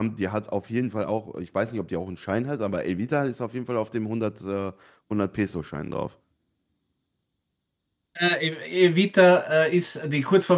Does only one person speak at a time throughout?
Yes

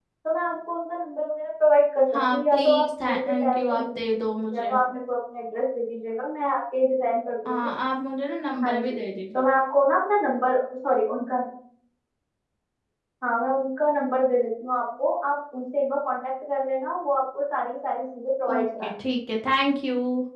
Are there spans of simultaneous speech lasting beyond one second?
Yes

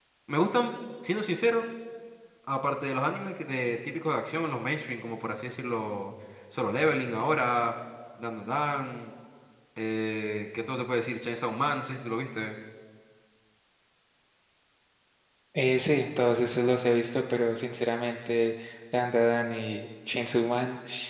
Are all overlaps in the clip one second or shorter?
Yes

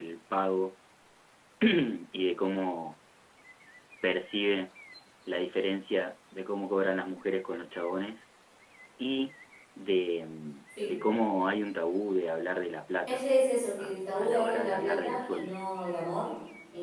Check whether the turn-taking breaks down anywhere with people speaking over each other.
Yes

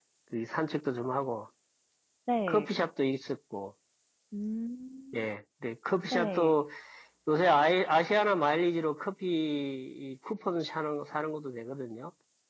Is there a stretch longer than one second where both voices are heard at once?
No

